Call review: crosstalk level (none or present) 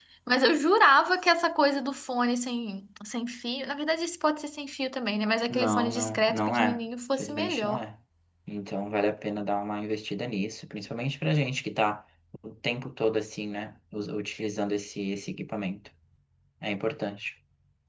present